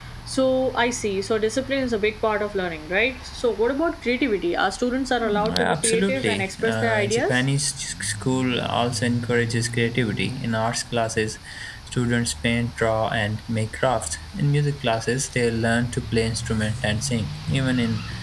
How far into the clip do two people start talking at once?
5.5 s

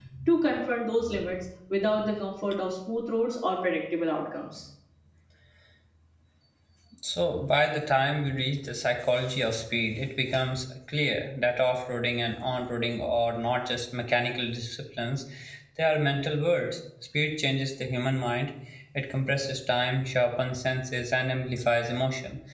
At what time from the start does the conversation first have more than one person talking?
none

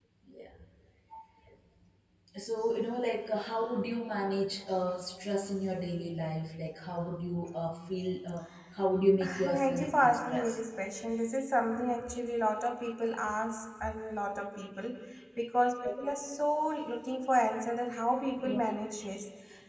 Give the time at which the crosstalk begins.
9.2 s

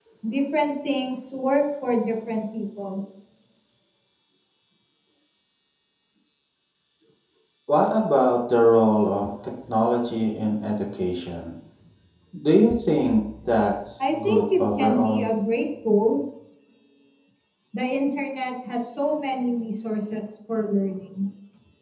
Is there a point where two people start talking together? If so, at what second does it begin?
14.0 s

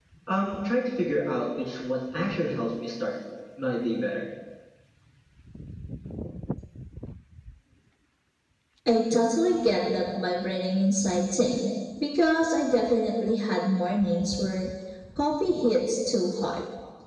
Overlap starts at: none

